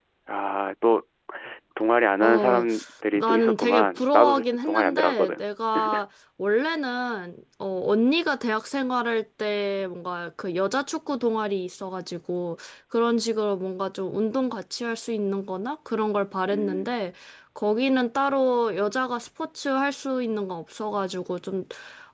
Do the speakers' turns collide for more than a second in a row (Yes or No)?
Yes